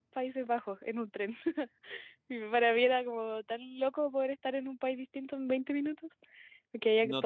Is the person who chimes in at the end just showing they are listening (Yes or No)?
No